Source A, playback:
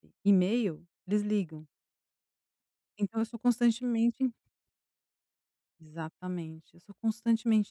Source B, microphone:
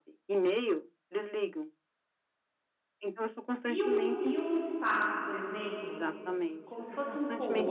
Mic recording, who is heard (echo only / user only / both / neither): both